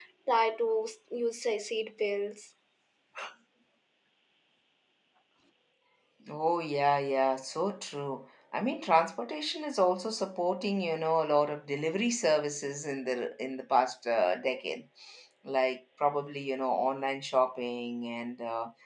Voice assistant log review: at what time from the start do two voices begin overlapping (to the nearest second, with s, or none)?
none